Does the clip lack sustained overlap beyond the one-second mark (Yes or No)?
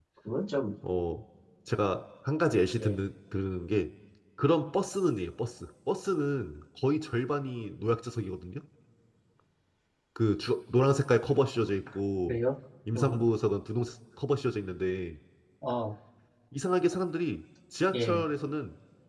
Yes